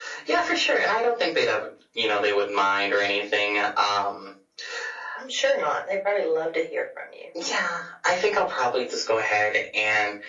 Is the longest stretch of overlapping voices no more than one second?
Yes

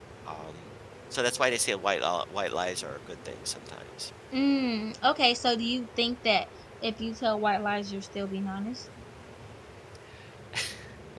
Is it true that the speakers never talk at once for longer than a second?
Yes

